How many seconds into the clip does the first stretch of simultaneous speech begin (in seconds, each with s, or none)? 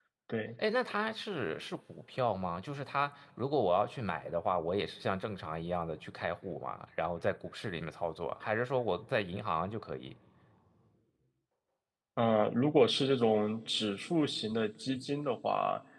none